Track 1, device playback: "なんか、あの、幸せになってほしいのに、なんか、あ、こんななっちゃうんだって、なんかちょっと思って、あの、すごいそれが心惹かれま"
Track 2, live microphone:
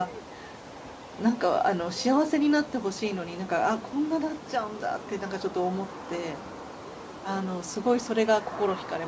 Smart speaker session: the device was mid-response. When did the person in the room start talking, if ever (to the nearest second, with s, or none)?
none